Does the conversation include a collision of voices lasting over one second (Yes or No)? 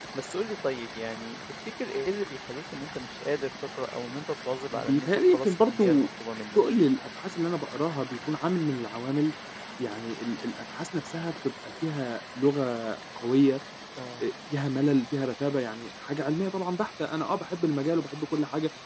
Yes